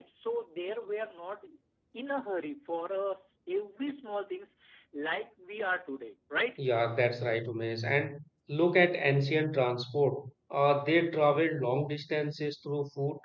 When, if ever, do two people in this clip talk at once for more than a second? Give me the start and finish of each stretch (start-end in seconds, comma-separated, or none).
none